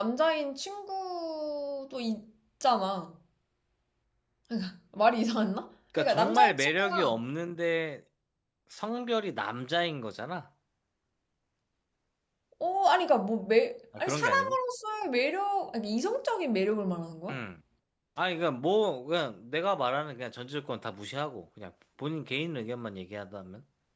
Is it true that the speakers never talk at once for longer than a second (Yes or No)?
No